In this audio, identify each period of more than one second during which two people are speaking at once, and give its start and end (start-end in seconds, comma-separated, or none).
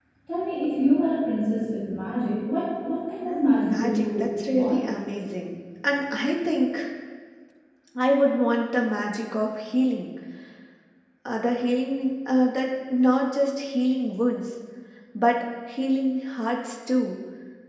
3.2-4.9